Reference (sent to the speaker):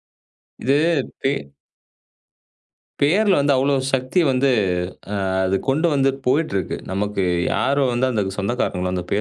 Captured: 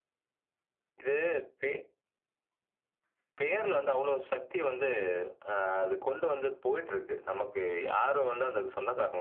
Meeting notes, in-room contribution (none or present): none